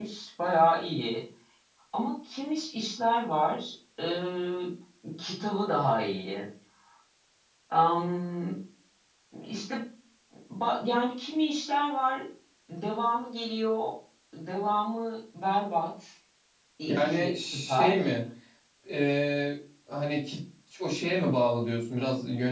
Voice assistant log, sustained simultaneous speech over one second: present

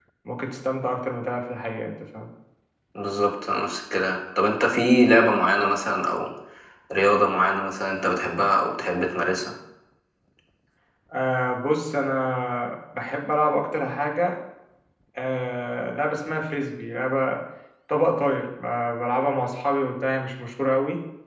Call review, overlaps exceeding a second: none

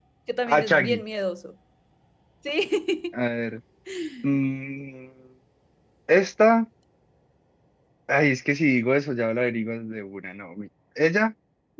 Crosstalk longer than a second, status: none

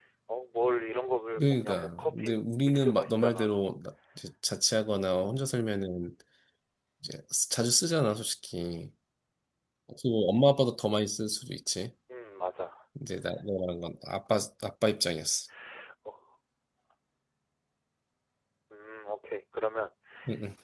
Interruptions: present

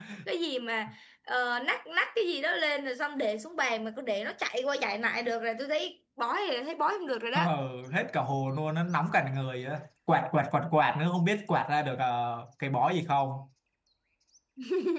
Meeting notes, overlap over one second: none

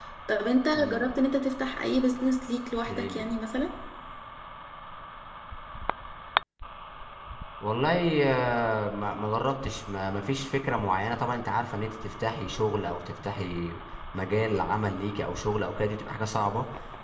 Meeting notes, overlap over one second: none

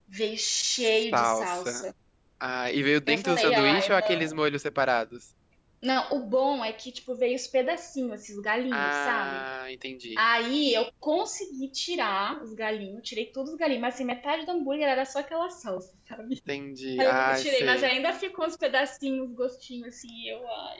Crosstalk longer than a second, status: present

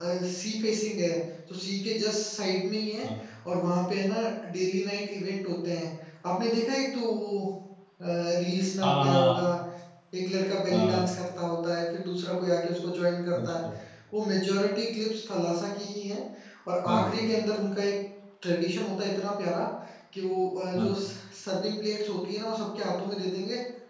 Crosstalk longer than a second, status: none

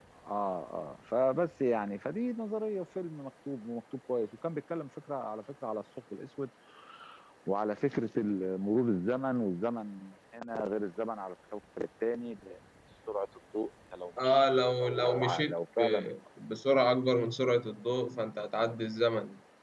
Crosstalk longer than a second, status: present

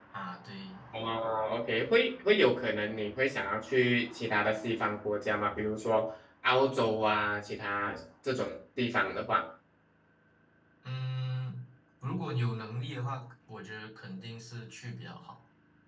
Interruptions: none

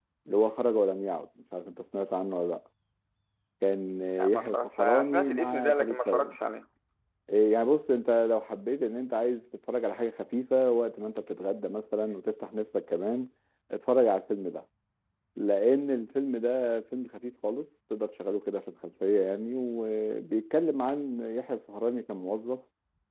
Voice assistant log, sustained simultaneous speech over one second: present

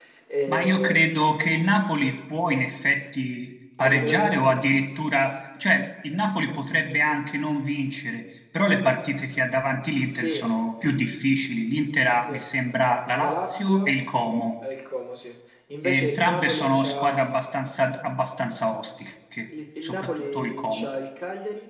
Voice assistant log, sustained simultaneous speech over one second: present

